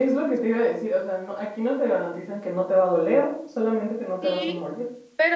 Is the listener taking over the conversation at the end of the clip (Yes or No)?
Yes